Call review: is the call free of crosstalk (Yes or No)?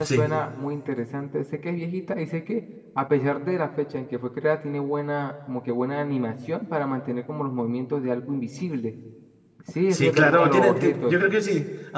No